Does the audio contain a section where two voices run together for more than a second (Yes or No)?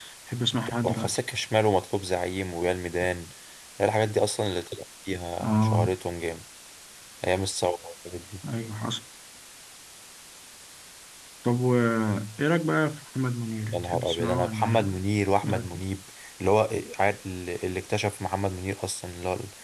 Yes